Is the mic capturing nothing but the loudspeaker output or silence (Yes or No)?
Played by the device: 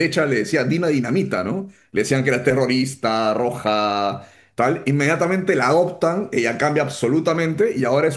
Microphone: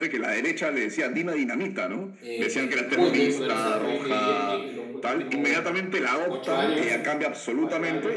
No